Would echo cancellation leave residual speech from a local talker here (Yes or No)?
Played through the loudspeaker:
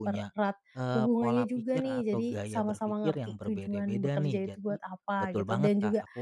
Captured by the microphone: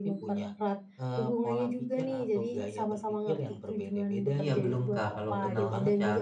Yes